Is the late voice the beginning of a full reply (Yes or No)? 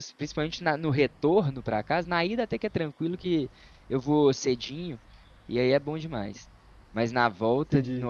No